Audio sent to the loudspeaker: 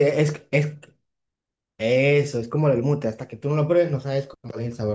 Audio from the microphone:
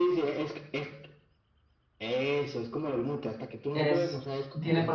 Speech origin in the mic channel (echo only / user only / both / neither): both